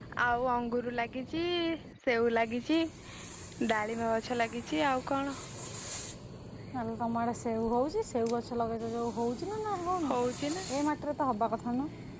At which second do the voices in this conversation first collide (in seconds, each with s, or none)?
none